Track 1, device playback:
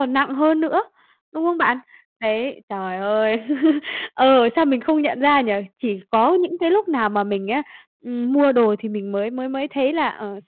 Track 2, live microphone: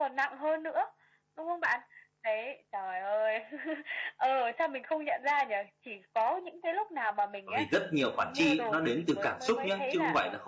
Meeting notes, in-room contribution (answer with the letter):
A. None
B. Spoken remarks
B